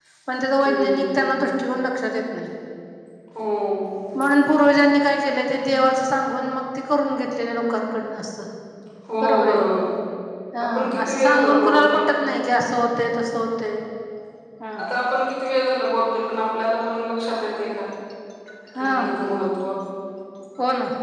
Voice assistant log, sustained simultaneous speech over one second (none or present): present